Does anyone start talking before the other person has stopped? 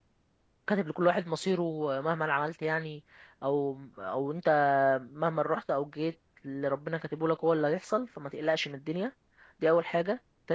No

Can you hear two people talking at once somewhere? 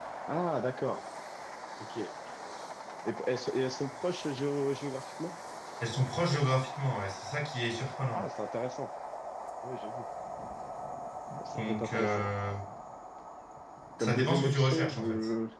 Yes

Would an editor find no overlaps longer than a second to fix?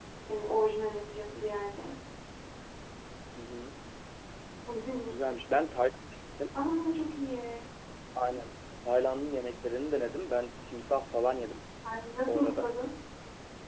Yes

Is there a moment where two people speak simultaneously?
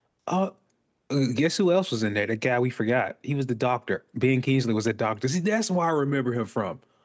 No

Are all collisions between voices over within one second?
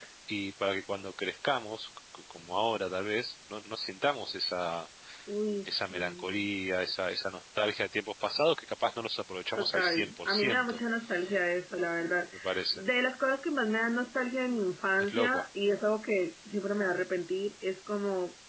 No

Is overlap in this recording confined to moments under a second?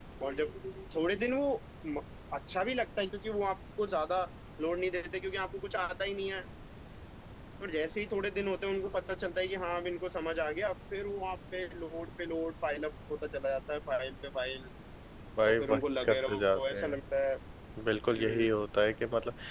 No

